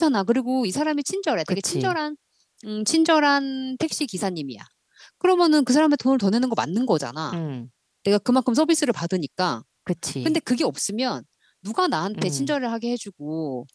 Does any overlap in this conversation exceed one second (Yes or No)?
No